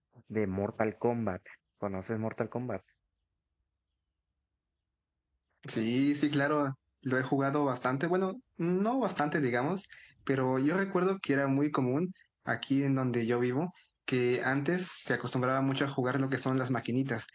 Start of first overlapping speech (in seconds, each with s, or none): none